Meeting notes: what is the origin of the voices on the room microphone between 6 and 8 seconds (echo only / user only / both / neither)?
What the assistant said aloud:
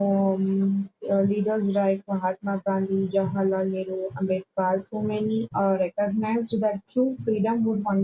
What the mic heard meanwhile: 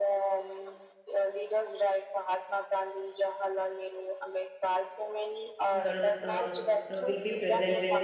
both